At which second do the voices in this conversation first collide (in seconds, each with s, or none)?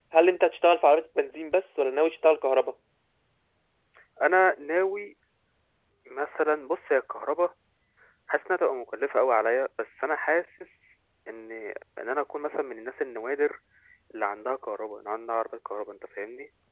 none